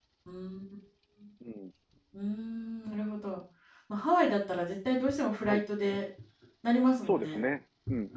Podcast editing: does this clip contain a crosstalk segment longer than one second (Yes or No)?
No